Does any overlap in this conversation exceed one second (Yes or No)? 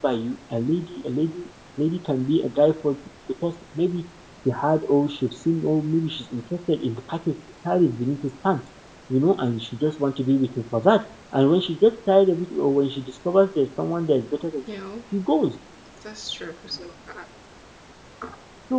No